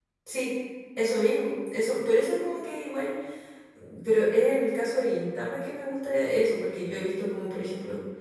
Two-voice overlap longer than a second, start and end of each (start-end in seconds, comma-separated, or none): none